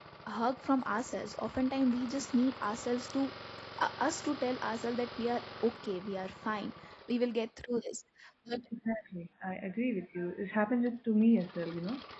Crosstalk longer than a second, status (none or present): none